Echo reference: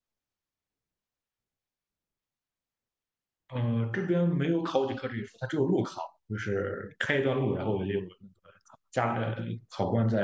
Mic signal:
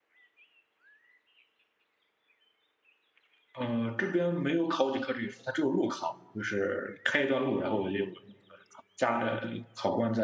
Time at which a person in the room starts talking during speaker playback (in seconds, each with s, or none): none